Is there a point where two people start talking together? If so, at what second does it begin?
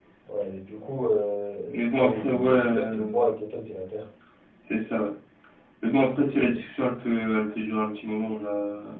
1.7 s

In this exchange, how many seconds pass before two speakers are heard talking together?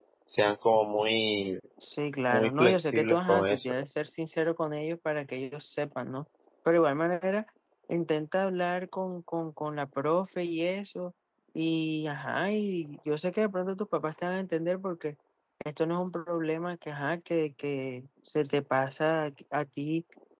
2.3 s

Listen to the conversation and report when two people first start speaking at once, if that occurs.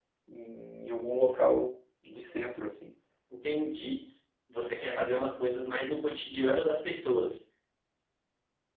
none

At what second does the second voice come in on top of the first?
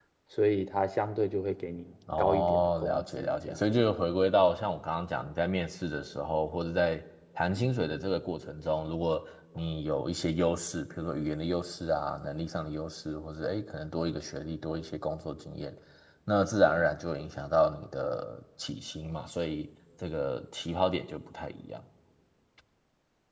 2.1 s

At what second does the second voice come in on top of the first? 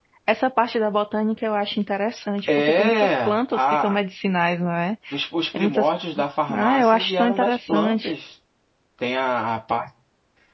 2.6 s

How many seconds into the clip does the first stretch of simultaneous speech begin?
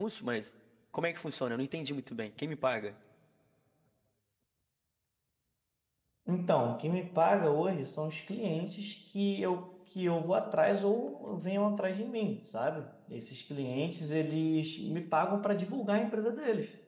none

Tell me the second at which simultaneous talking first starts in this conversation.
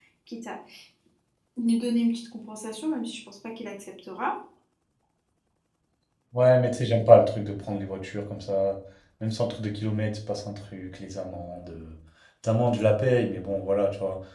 none

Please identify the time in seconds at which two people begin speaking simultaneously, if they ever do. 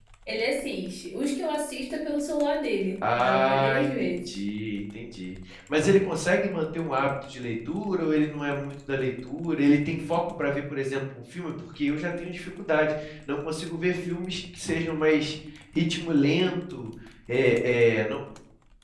3.0 s

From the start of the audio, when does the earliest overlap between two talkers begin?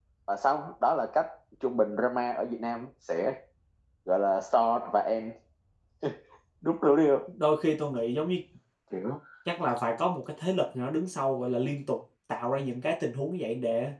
none

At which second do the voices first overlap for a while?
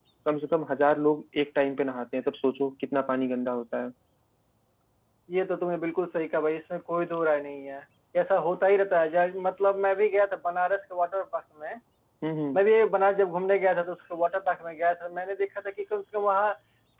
none

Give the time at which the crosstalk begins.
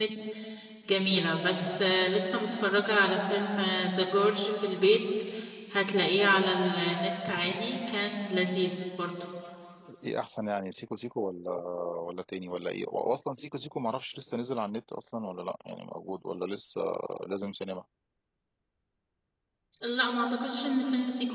none

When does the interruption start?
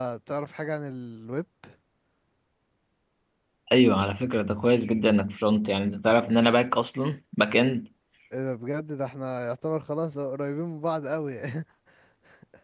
none

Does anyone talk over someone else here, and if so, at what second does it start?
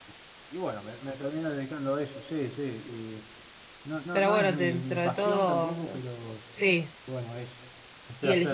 4.1 s

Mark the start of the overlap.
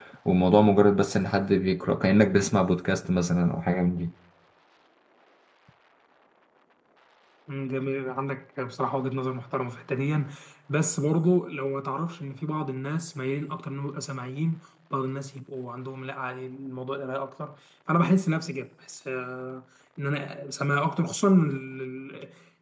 none

